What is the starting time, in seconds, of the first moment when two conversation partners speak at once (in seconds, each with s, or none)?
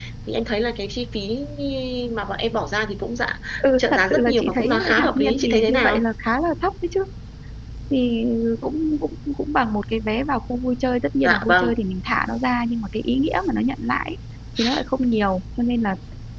3.8 s